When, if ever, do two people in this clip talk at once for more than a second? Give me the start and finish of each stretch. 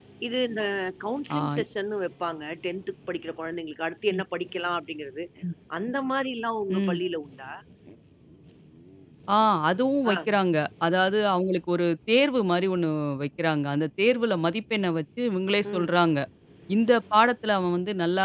none

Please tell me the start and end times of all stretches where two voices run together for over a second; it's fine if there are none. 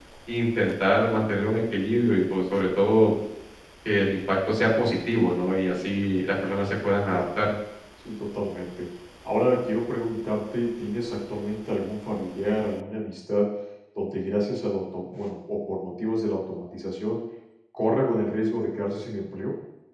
none

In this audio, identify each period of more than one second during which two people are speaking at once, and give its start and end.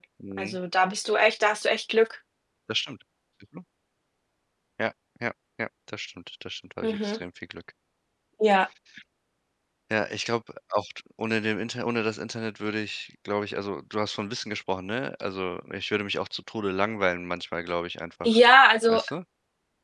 none

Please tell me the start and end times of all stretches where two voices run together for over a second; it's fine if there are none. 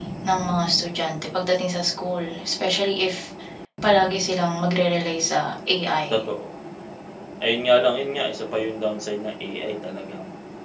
none

